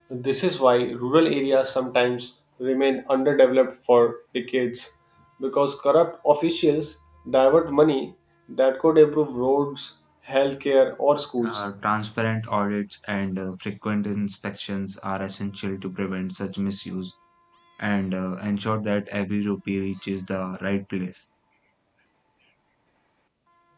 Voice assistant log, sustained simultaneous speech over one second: none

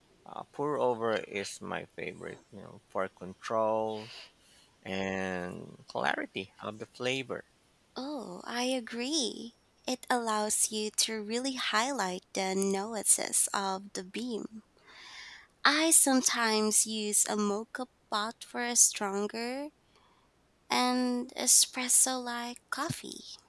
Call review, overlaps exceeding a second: none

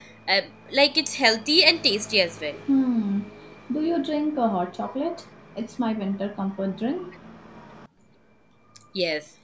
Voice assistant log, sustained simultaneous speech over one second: none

